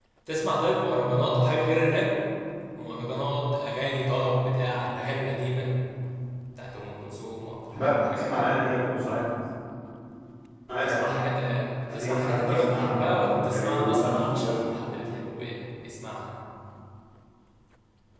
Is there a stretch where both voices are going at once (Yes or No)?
Yes